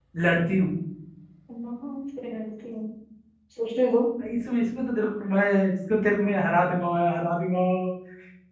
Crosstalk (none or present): none